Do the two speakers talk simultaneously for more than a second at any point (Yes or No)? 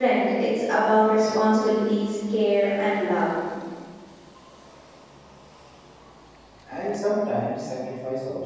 No